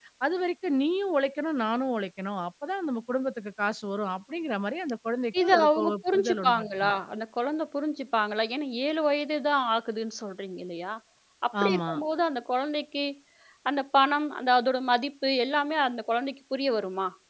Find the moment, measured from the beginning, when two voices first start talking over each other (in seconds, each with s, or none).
5.4 s